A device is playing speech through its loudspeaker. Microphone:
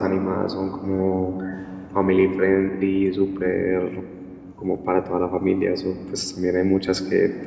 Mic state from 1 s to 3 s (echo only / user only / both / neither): echo only